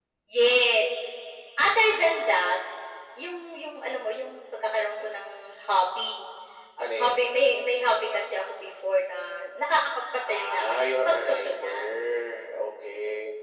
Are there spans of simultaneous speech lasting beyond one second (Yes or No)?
Yes